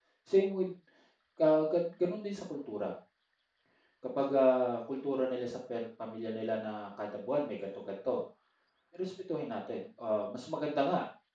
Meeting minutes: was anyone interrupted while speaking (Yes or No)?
No